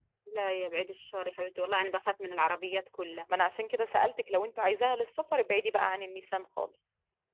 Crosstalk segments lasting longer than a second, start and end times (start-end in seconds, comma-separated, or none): none